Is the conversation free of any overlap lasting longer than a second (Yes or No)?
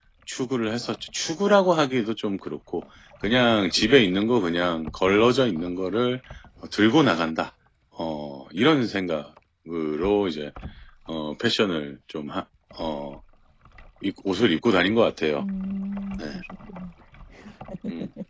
Yes